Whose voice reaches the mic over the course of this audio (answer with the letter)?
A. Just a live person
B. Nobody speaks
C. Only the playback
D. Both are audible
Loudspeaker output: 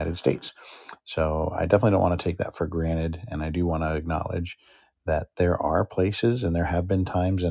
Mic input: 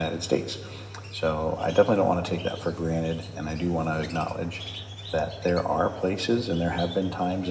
C